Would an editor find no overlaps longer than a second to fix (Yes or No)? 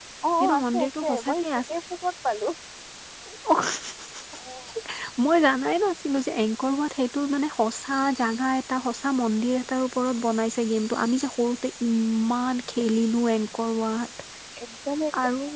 No